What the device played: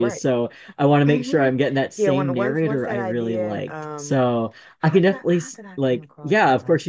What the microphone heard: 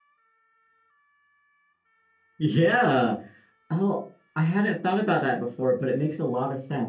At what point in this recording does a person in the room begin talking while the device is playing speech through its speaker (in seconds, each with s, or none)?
2.4 s